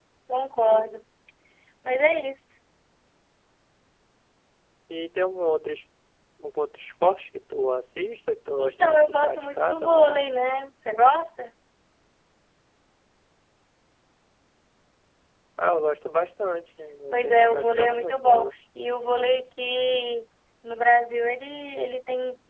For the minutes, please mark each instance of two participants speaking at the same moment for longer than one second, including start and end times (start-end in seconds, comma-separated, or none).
8.6-10.2, 17.1-18.5